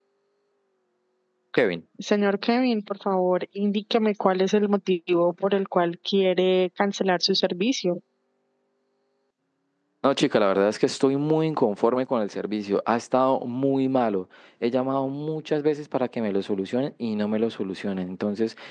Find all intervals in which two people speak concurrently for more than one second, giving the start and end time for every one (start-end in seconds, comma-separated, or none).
none